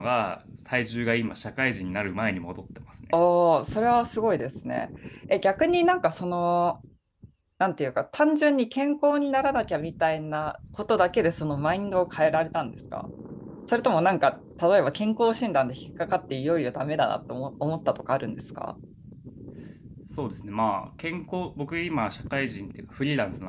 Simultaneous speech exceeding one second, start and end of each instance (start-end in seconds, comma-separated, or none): none